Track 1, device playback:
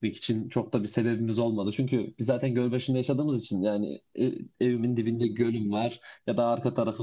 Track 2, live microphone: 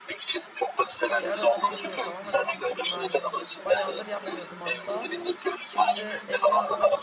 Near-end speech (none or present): present